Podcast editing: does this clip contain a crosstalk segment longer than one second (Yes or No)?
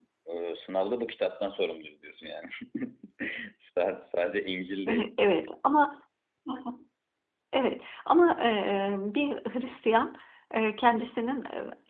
No